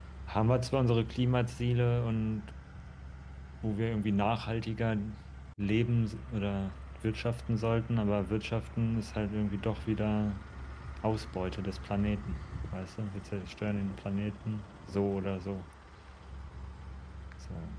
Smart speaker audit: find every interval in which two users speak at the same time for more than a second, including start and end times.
none

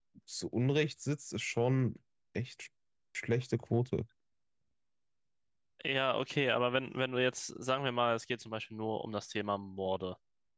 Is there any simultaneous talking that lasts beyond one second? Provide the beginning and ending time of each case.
none

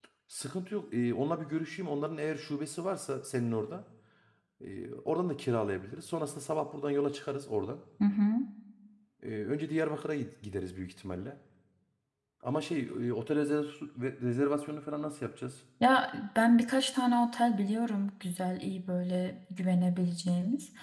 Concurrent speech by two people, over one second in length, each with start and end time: none

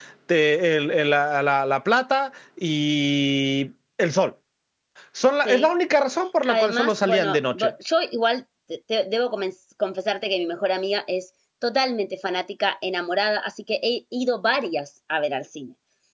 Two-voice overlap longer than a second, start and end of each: 6.5-7.7

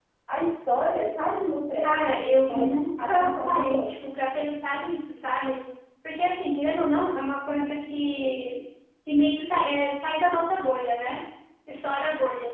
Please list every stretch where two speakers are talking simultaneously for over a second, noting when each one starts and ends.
1.8-3.9

